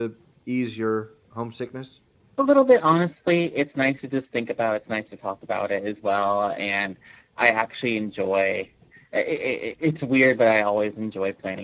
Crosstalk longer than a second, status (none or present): none